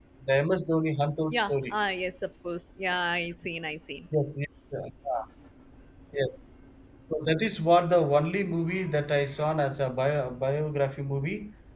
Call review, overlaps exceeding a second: none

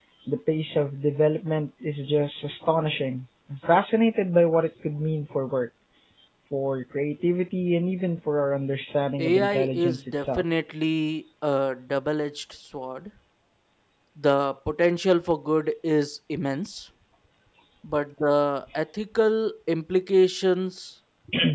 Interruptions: present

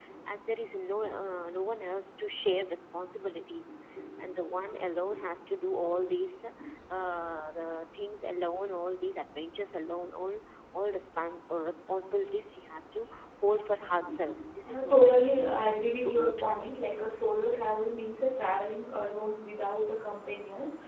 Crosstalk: present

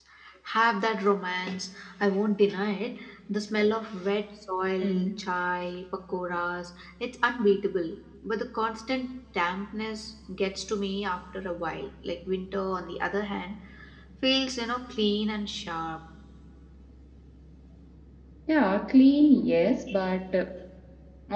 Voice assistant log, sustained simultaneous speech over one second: none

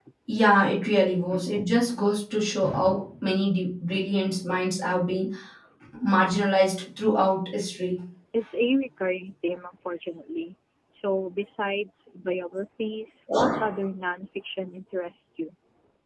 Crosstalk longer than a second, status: none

